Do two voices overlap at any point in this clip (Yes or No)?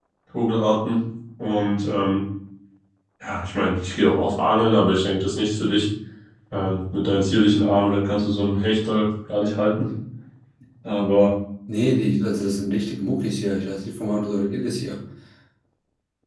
No